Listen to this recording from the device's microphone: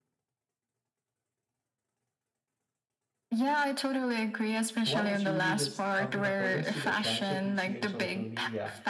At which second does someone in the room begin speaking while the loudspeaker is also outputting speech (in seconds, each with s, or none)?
4.8 s